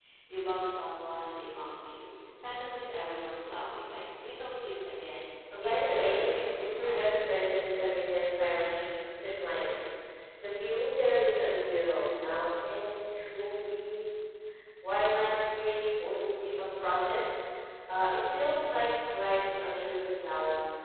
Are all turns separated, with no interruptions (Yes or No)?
No